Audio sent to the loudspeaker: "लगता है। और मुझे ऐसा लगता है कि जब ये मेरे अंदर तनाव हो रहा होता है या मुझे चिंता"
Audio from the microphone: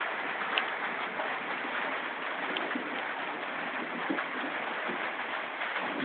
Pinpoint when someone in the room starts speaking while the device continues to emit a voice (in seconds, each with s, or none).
none